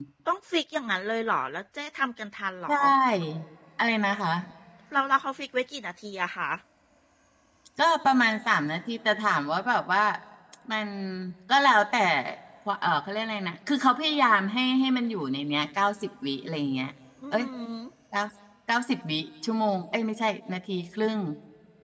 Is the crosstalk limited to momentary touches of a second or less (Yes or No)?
Yes